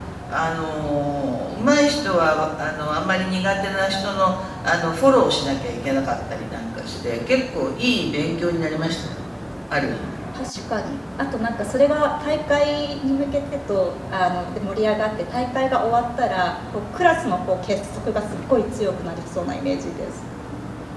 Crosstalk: none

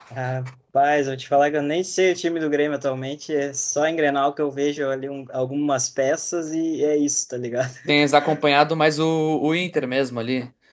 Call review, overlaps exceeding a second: none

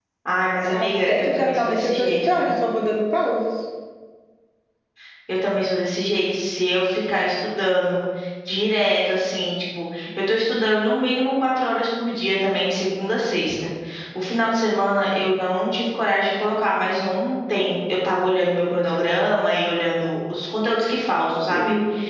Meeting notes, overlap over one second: present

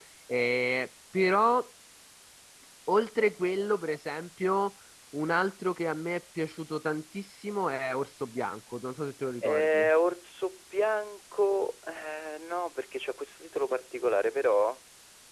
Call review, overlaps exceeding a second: none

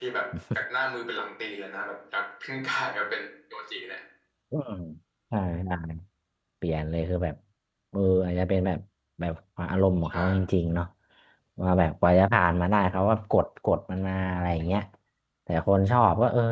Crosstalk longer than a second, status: none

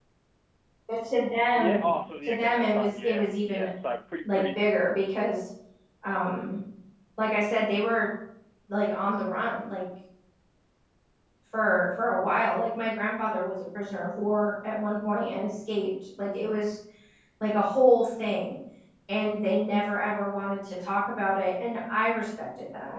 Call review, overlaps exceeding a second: present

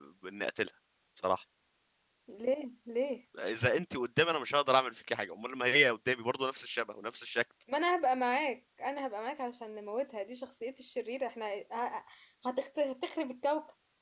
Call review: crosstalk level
none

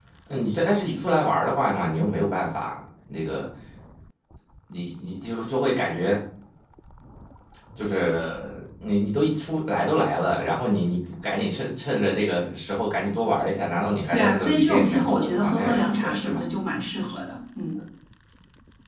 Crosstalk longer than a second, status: present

